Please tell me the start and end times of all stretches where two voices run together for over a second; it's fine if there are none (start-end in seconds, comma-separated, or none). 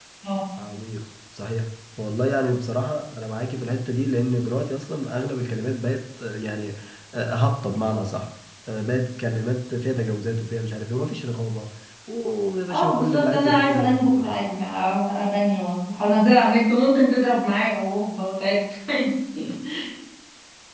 12.7-14.4